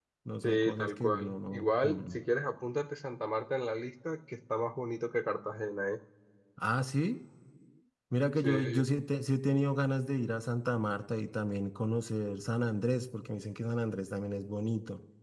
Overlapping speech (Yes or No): Yes